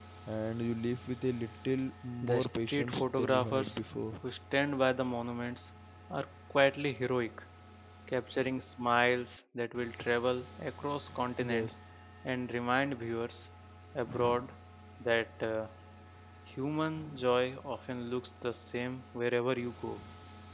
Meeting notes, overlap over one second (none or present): present